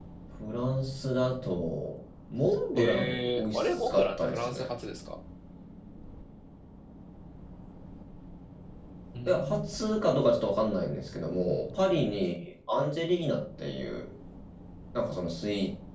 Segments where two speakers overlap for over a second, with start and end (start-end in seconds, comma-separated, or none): 2.8-4.7